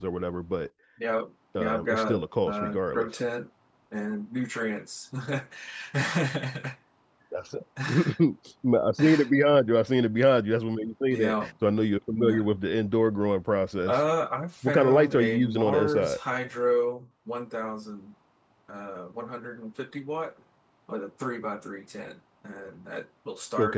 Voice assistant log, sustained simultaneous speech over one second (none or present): present